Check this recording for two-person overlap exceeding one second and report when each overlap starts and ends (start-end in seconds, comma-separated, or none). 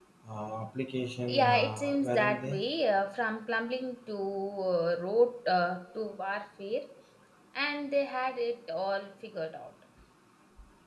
1.3-2.6